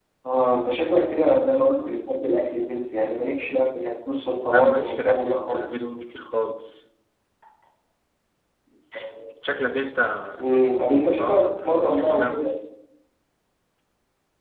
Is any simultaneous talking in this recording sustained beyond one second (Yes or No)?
Yes